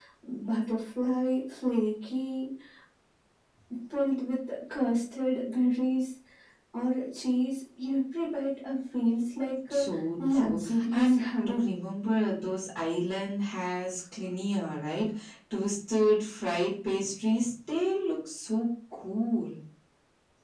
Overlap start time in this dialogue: 9.7 s

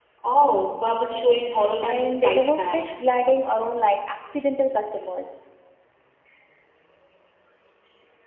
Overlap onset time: 1.8 s

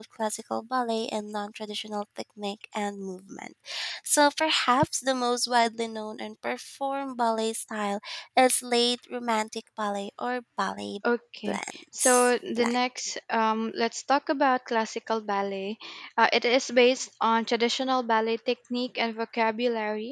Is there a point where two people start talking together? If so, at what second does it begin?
11.5 s

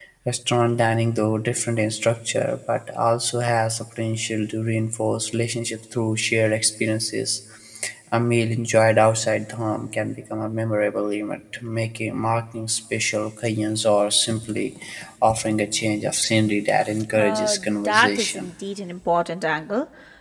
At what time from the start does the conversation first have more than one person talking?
17.1 s

